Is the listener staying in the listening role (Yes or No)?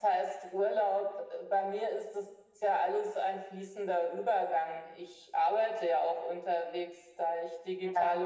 Yes